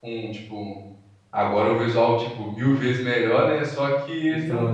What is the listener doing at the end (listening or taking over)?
listening